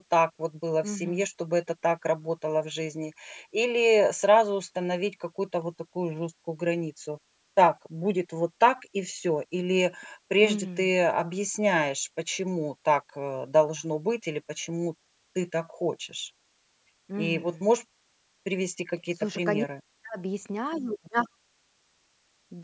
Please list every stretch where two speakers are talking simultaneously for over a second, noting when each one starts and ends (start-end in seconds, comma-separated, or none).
none